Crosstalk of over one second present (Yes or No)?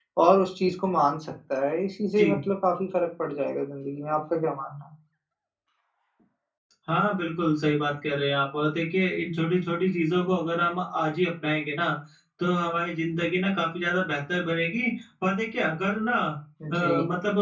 No